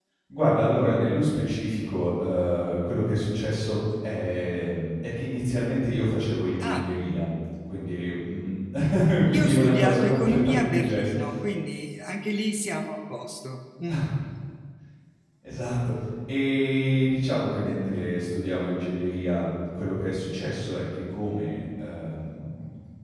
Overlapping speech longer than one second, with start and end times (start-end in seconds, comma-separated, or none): 9.3-11.2